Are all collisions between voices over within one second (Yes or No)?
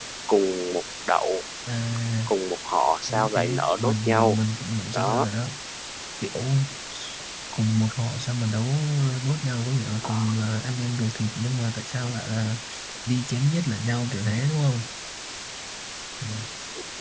No